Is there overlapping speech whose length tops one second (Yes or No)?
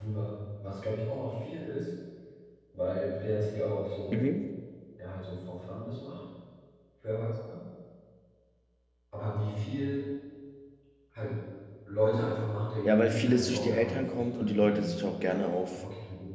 Yes